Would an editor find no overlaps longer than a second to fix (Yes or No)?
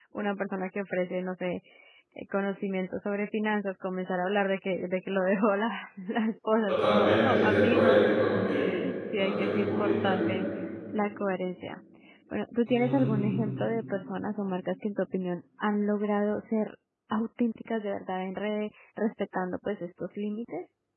No